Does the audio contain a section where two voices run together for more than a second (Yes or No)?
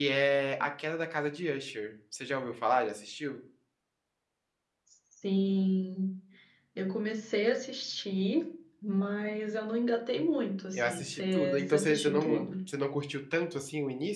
Yes